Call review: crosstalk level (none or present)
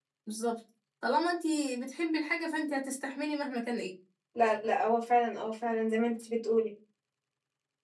none